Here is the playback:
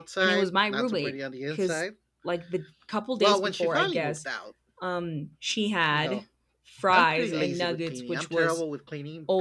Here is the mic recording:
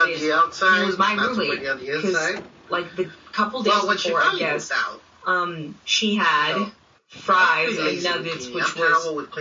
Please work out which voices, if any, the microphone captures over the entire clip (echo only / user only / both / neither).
echo only